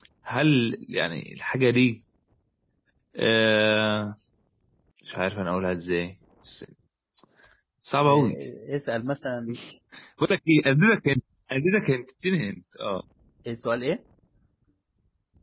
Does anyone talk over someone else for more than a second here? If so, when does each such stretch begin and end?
none

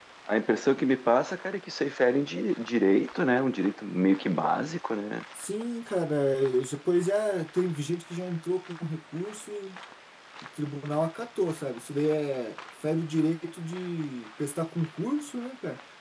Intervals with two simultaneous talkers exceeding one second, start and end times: none

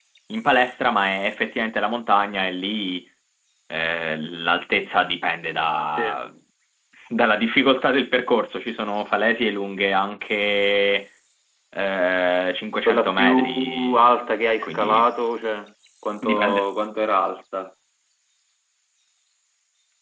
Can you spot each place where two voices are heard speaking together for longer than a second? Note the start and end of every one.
12.9-14.1

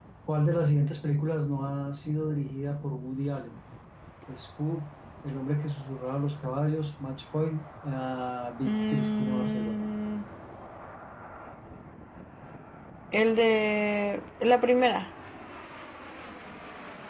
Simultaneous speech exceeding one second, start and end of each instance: 8.7-9.9

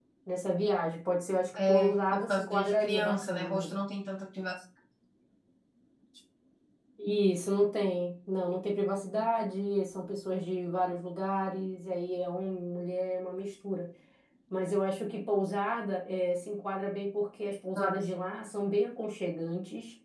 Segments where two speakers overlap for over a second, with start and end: 1.6-3.6

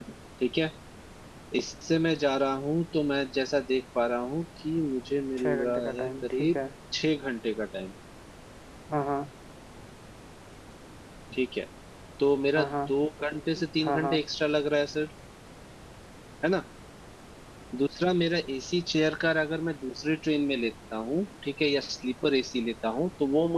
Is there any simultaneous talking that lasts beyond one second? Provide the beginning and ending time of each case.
5.4-6.6

